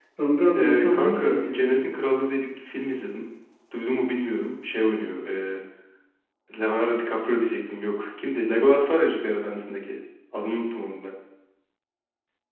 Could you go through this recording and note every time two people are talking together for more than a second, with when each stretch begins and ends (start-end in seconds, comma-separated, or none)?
0.5-1.8